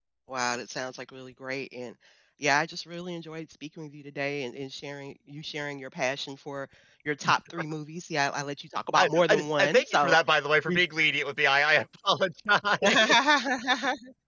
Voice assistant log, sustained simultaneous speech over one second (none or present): present